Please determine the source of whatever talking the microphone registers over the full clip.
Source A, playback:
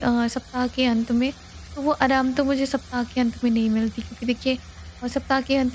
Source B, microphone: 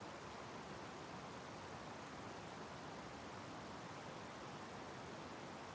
neither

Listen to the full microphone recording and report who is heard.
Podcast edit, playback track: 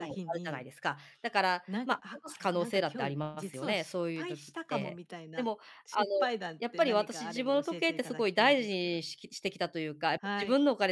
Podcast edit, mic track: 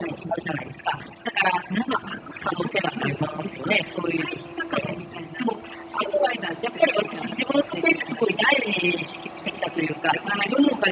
echo only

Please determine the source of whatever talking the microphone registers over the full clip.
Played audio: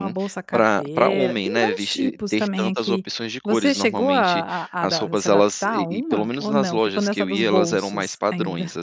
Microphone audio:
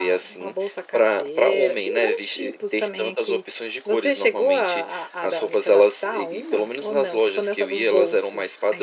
echo only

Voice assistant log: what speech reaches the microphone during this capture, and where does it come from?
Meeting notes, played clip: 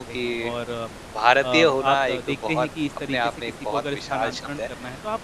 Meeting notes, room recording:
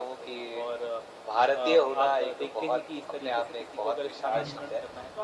both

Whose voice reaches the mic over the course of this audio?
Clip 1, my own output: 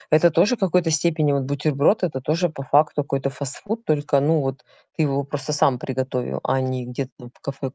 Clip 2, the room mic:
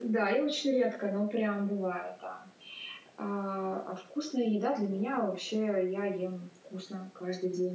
user only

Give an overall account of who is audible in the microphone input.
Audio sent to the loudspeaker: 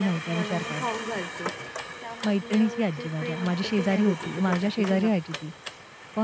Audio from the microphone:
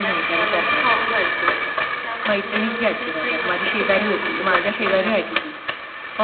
echo only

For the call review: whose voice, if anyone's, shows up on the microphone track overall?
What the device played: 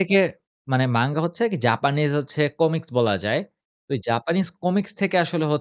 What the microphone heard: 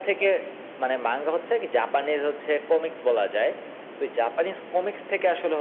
echo only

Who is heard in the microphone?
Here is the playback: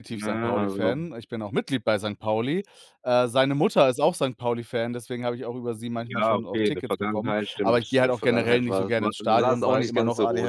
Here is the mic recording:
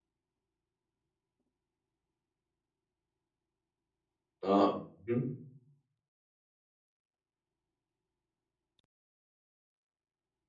user only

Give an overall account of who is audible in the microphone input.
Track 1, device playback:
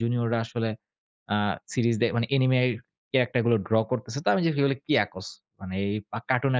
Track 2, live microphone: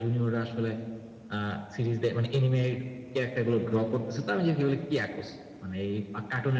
echo only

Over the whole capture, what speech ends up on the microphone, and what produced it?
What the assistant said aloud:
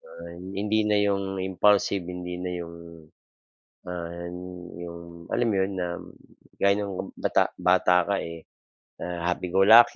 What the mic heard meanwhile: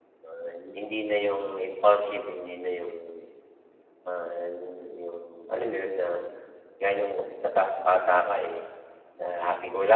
echo only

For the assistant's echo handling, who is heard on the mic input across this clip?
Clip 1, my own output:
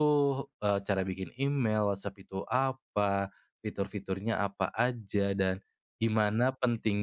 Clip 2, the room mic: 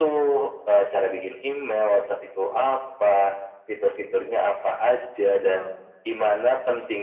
both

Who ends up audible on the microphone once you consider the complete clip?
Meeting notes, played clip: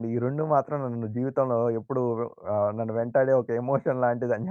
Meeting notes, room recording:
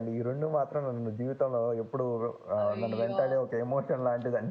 both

